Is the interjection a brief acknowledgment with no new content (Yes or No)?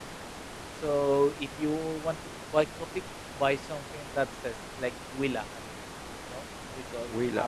No